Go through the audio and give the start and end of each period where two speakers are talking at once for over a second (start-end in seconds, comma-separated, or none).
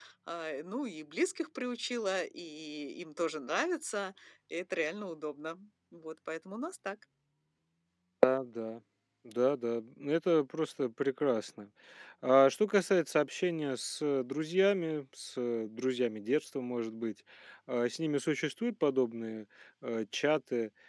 none